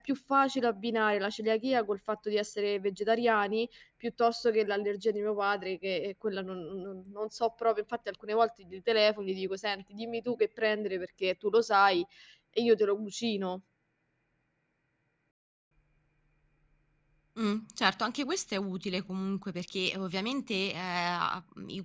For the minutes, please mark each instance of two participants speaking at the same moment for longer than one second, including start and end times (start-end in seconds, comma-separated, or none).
none